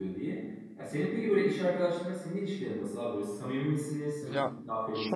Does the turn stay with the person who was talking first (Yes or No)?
No